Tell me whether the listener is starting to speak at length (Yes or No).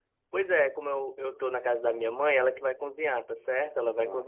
No